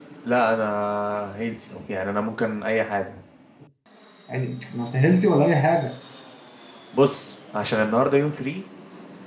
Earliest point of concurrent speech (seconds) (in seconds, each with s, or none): none